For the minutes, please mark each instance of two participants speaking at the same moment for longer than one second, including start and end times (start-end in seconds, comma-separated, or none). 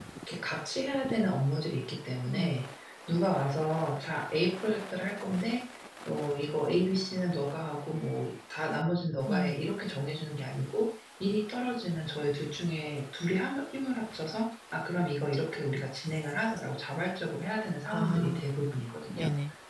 none